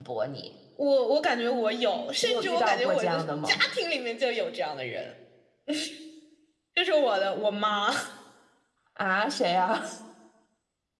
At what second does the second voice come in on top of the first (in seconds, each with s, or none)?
2.2 s